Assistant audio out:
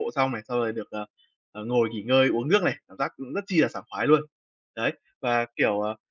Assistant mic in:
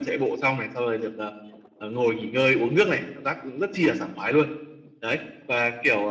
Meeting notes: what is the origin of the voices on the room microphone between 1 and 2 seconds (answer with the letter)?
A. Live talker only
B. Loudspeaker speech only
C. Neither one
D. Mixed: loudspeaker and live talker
B